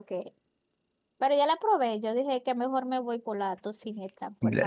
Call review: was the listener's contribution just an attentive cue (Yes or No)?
No